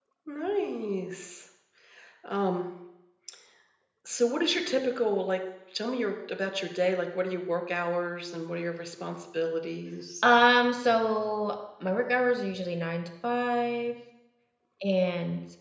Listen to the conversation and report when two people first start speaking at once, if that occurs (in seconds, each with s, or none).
none